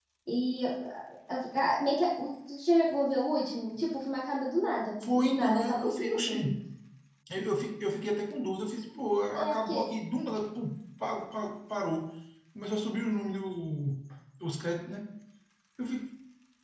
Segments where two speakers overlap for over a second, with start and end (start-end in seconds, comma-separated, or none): 5.1-6.5